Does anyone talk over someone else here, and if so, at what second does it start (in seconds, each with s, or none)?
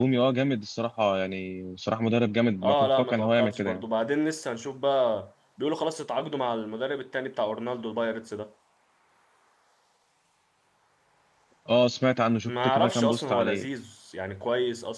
2.6 s